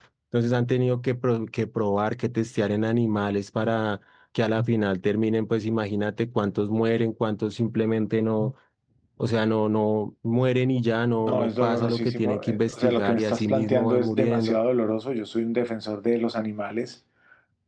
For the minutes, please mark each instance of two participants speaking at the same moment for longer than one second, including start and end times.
11.2-14.6

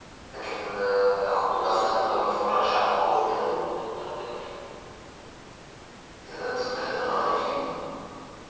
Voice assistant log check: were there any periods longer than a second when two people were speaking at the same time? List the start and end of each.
1.5-3.5

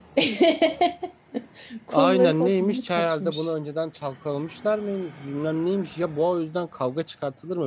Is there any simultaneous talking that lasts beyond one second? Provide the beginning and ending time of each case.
1.9-3.5

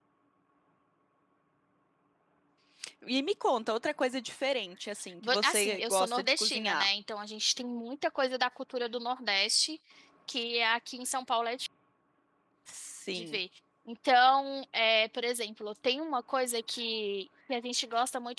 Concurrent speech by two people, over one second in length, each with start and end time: 5.2-6.9

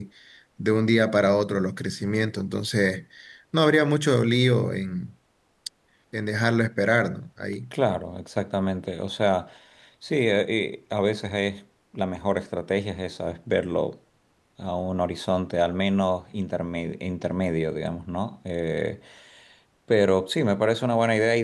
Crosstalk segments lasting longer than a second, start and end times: none

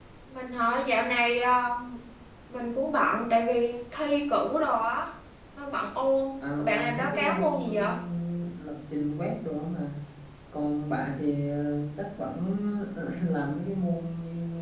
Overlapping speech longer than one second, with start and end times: 6.6-7.9

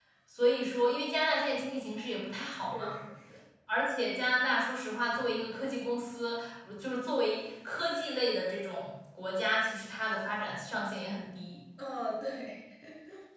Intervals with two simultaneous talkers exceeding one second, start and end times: none

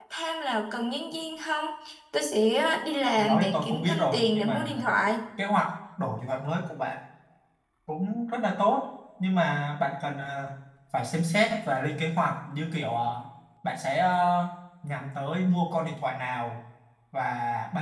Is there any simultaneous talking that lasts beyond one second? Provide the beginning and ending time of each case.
3.2-4.8

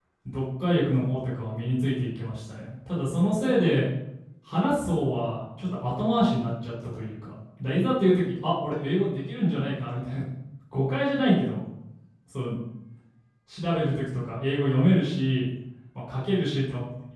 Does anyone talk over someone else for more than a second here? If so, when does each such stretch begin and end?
none

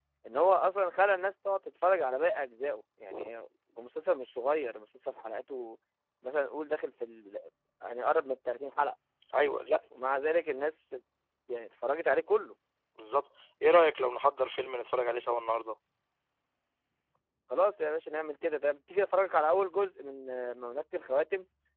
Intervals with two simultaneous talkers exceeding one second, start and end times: none

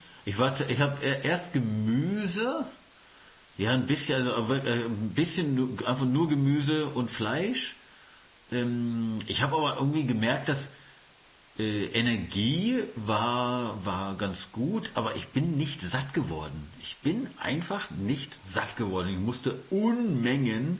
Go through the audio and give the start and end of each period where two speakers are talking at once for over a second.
none

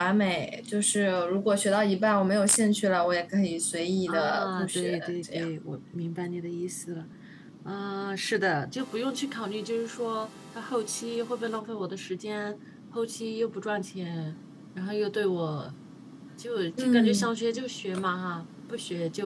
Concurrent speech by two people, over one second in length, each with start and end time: 4.1-5.5

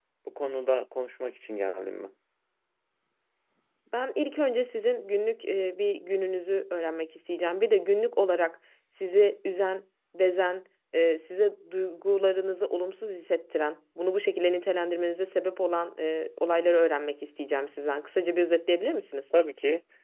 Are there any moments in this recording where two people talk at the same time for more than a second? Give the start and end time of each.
none

